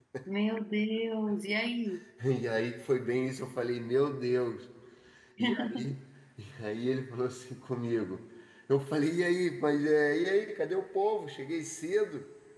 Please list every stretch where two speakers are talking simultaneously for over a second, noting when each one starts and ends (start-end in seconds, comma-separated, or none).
none